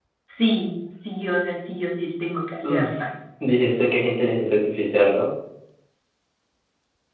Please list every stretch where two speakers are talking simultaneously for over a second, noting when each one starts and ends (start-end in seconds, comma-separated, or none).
none